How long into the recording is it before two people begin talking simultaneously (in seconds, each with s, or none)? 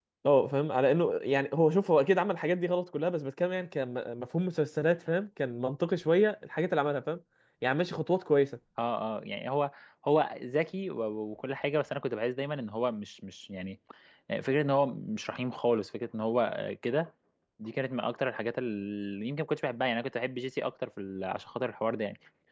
none